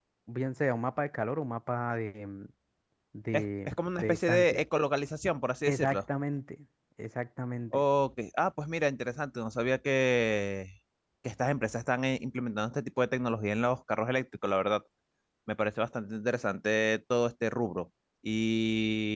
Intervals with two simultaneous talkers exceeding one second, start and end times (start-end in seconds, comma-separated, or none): 3.3-4.6